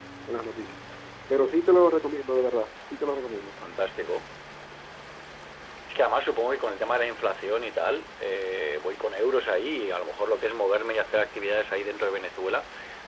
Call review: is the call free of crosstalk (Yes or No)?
Yes